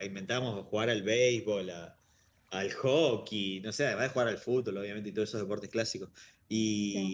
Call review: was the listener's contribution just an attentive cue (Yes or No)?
Yes